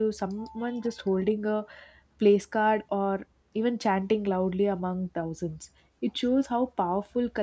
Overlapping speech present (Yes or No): No